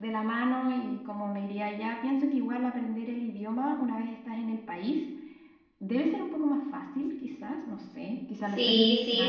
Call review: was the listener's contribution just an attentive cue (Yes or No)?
No